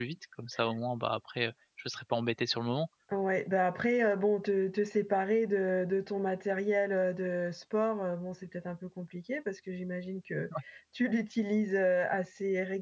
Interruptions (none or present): none